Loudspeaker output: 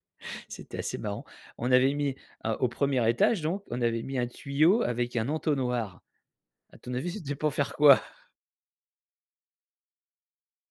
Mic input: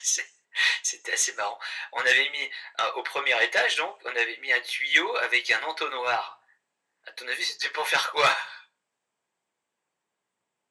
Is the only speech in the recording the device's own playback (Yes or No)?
Yes